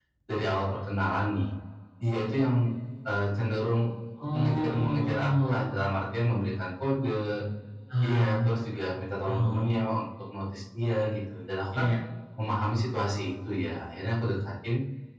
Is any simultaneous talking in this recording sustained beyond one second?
Yes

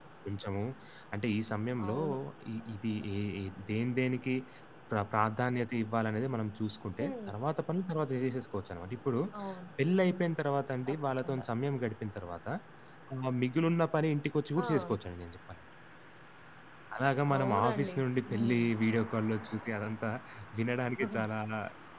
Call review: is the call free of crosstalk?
No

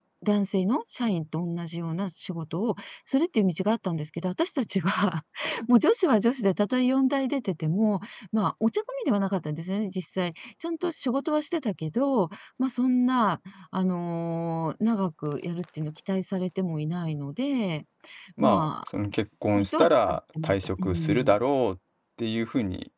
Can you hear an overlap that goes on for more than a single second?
Yes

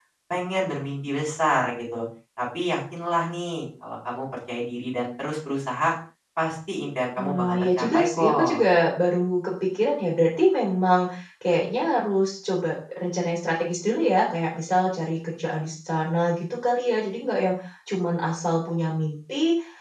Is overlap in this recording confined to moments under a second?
No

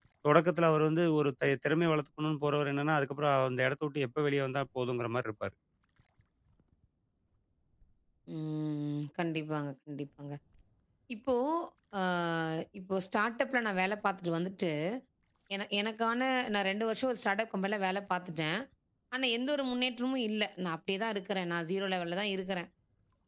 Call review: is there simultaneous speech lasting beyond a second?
No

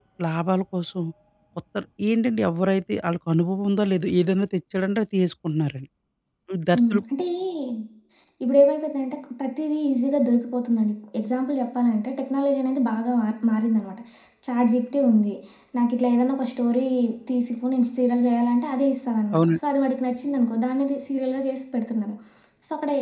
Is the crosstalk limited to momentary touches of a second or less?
Yes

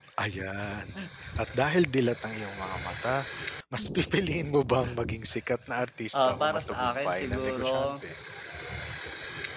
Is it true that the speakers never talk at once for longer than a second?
No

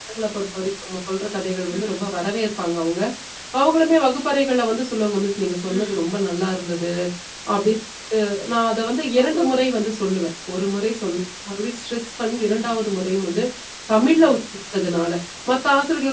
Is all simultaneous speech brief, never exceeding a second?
Yes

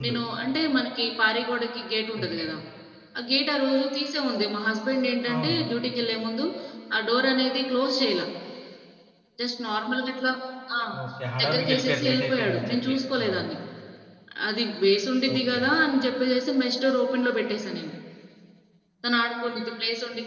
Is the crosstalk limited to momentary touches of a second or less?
No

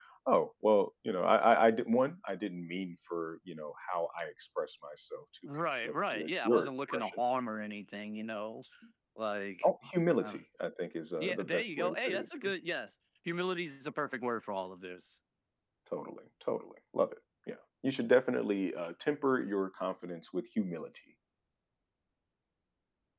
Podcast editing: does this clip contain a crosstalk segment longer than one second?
Yes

